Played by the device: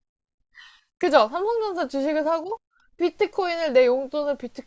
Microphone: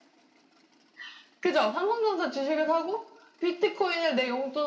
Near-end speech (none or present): none